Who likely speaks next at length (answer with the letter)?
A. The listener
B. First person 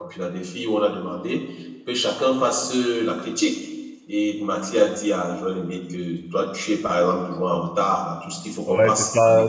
A